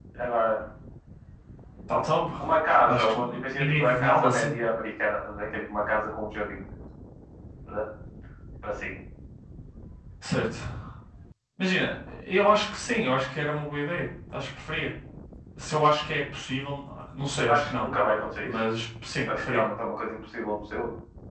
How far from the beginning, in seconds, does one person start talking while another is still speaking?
2.8 s

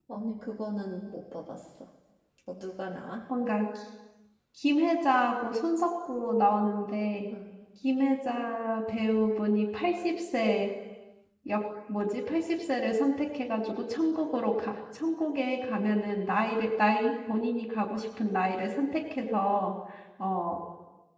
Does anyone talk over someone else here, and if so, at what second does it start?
none

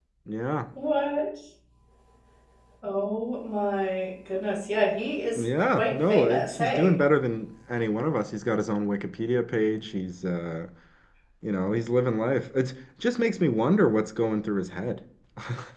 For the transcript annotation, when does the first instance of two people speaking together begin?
5.3 s

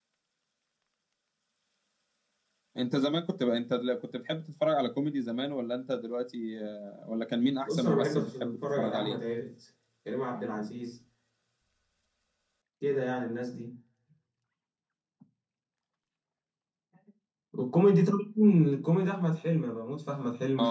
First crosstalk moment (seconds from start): 7.6 s

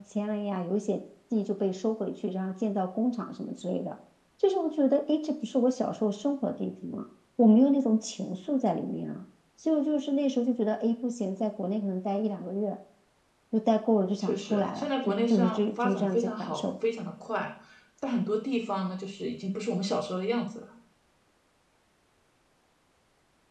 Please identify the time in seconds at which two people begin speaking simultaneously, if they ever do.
14.2 s

